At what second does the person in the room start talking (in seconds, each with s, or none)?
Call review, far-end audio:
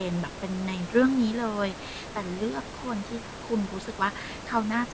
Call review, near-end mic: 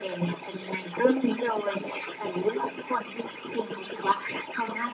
none